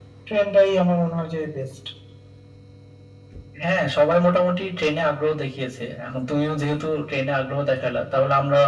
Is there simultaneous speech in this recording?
No

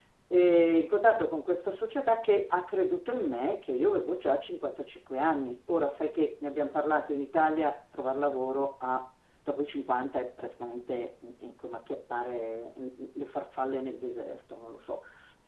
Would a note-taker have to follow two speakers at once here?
No

